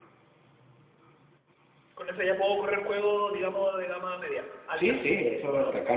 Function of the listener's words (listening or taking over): taking over